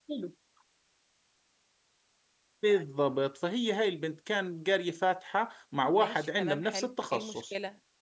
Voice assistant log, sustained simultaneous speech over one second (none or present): present